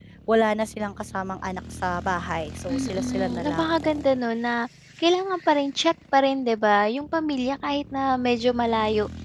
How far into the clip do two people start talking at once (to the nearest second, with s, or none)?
3 s